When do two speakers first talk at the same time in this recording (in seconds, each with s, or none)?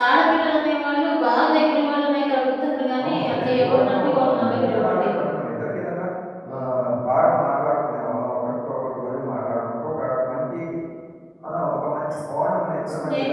3.0 s